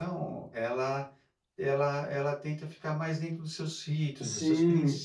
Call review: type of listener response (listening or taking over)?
taking over